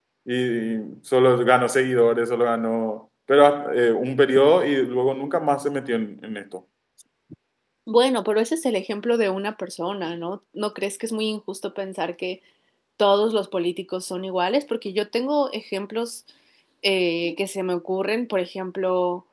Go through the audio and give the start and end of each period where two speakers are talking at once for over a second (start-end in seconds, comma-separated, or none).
none